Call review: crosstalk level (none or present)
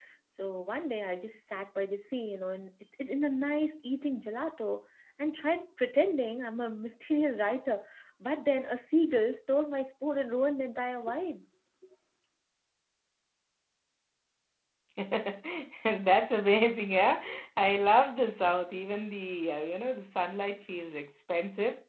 none